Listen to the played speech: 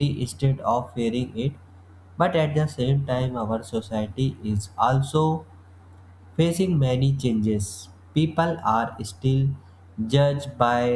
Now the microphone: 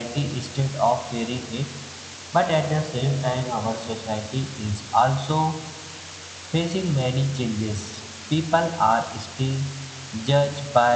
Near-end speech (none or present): none